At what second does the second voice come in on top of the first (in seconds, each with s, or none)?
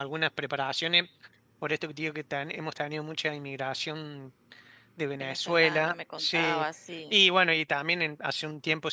5.2 s